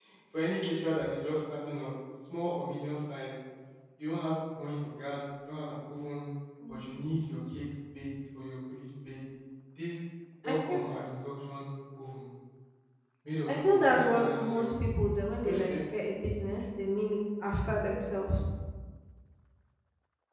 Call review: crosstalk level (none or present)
present